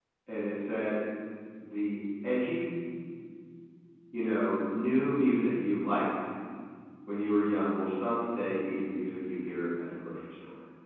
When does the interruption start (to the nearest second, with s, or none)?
none